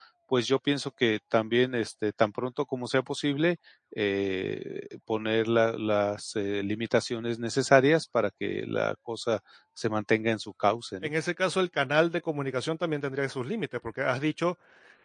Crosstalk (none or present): none